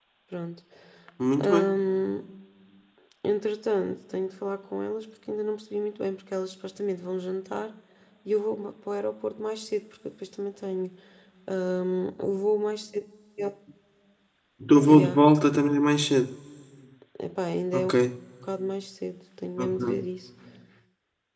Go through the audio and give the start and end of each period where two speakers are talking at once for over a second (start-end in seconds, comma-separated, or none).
none